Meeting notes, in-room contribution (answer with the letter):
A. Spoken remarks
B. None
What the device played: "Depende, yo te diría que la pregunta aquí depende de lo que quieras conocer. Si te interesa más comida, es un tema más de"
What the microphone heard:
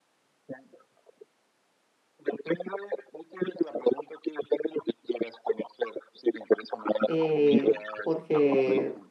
A